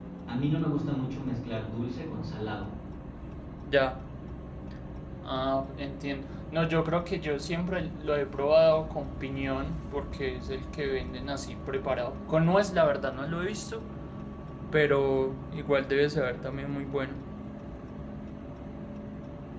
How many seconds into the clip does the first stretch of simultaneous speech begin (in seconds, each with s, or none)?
none